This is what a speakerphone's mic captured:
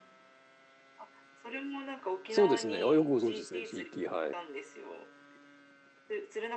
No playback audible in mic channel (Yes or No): No